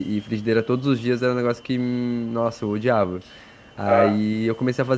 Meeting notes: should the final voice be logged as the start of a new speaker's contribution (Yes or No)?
No